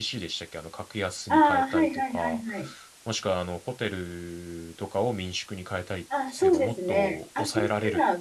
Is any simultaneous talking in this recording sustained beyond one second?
Yes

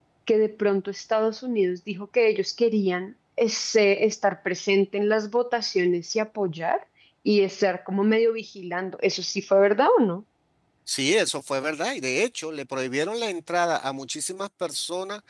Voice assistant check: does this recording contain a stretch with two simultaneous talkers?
No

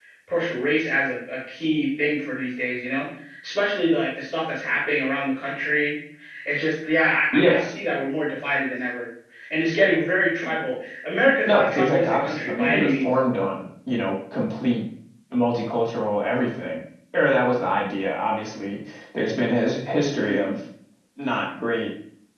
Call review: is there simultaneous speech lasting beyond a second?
Yes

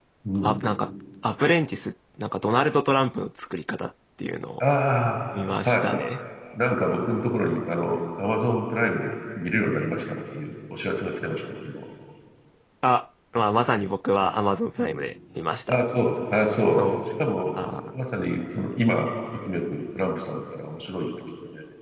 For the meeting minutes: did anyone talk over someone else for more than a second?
No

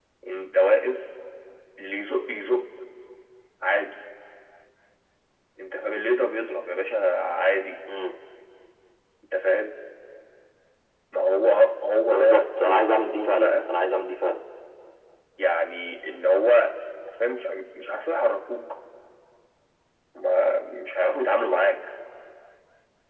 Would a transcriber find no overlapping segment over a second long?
No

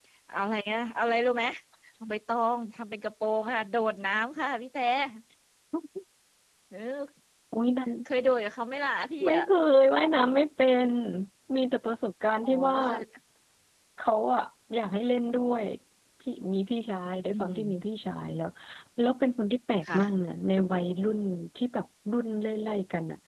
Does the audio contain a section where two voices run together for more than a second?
No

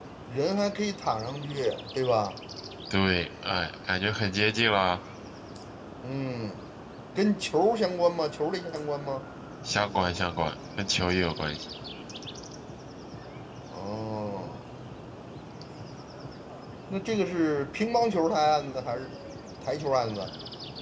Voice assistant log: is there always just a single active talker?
Yes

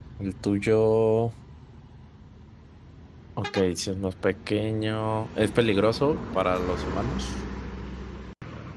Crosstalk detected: No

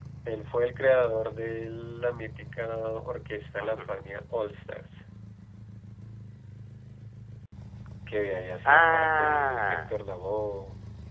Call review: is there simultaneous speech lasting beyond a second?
Yes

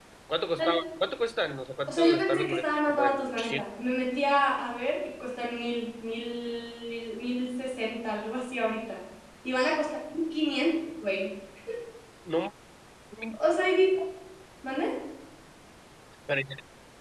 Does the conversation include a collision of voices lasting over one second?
Yes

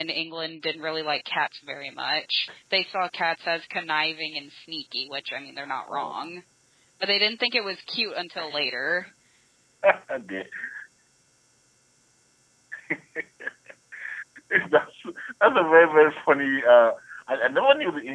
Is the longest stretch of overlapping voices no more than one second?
Yes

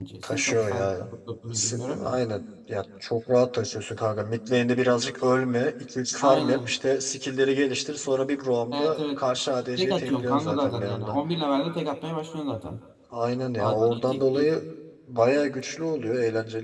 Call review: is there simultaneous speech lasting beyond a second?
Yes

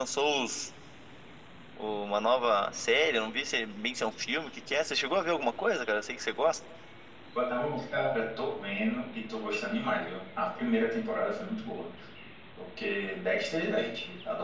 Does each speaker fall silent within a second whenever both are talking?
Yes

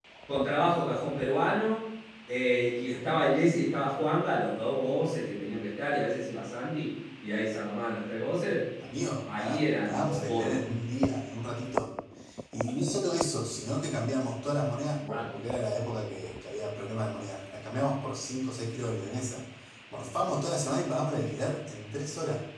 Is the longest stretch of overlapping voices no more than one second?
No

